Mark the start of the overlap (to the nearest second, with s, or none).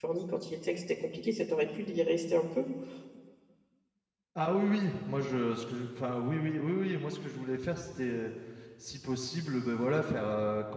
none